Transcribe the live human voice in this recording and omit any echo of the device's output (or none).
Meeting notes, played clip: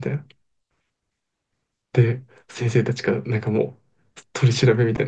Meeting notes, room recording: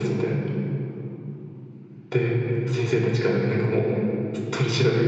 none